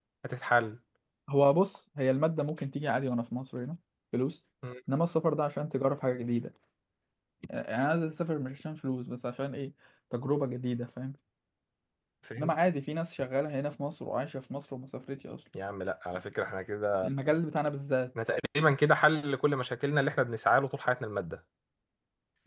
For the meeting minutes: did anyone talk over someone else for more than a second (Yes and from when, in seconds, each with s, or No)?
No